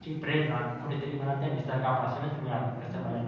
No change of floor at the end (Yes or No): No